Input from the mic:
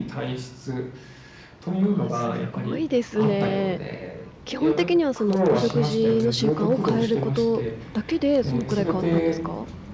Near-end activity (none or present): present